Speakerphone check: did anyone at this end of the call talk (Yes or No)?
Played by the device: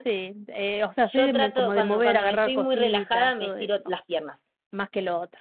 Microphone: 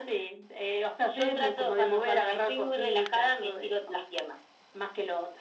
No